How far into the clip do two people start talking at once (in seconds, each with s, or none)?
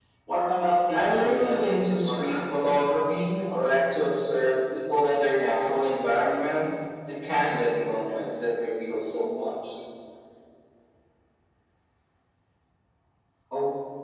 0.9 s